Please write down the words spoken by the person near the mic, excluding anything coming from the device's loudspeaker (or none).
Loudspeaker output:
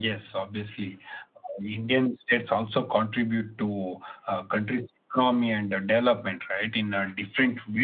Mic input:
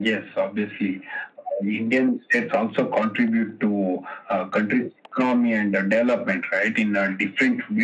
none